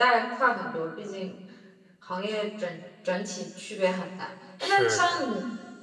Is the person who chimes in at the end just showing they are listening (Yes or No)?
Yes